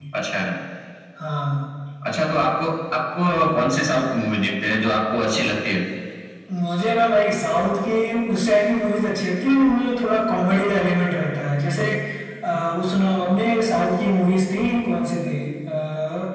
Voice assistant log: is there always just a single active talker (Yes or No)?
Yes